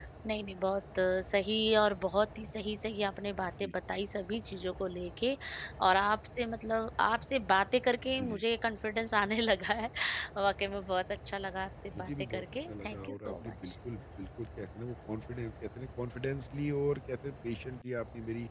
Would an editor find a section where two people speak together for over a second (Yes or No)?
Yes